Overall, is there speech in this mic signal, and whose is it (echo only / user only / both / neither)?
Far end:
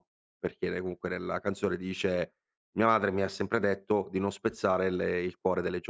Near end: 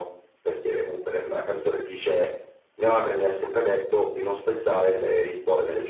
echo only